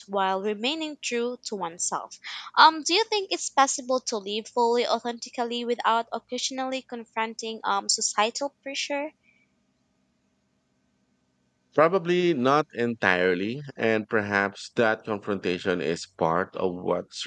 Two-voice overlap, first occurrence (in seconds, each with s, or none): none